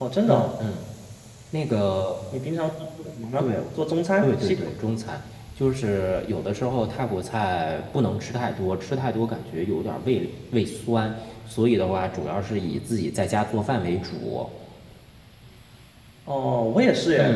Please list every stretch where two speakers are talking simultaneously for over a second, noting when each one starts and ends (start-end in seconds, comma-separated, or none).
none